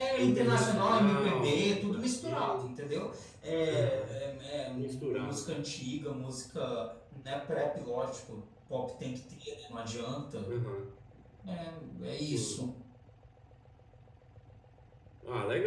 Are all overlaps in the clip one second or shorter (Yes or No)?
No